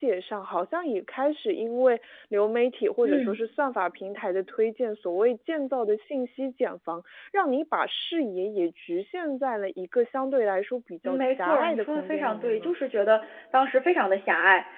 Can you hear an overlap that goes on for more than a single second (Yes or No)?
Yes